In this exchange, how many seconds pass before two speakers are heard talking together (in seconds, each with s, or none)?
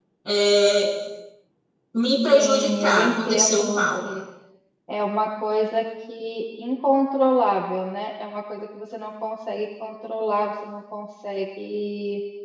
2.3 s